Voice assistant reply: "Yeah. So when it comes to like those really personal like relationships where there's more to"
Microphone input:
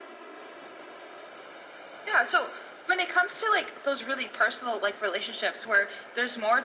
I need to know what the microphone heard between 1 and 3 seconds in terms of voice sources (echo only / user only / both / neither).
echo only